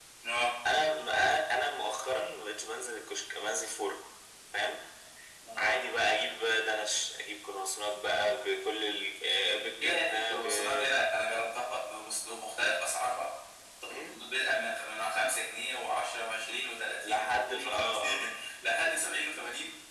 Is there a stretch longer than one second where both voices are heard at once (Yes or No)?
Yes